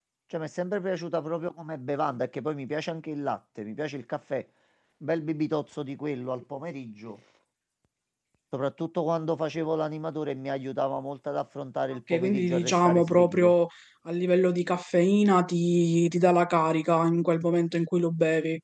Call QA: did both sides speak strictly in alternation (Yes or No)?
No